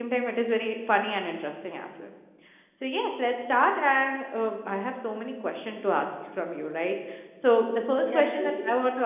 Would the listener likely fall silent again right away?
Yes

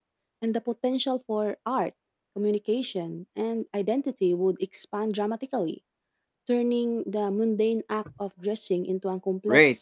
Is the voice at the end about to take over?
Yes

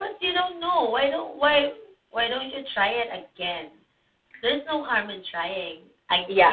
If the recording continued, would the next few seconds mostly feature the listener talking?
Yes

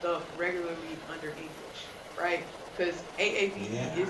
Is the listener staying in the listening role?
Yes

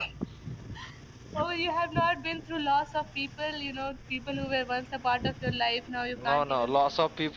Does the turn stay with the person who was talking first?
No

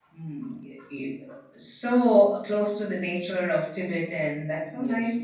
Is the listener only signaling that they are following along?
No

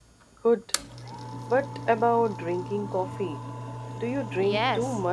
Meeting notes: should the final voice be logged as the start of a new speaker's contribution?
Yes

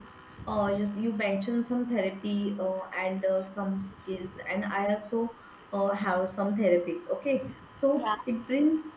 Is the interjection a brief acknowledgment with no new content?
Yes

